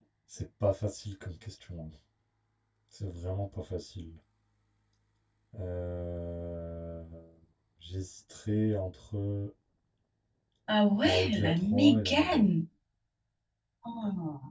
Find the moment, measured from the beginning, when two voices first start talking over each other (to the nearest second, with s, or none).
11 s